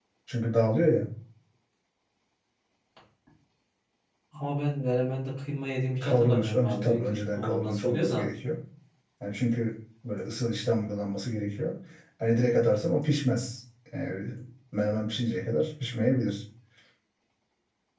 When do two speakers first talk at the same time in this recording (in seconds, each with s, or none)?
6.0 s